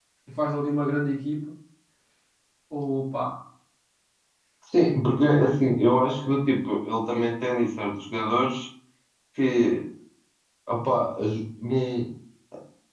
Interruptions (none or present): none